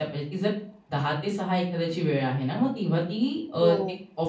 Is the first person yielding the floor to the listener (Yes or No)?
No